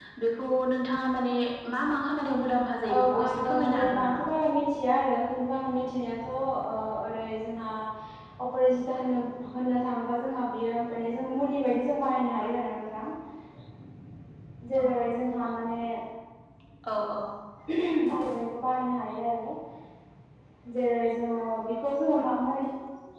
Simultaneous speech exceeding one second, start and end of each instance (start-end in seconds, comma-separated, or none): 2.9-4.2